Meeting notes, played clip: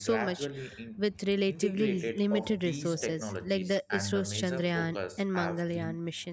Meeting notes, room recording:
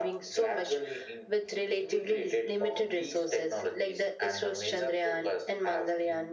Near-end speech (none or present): none